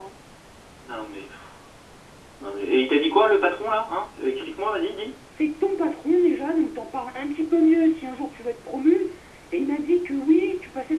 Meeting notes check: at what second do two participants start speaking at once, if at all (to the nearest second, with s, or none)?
none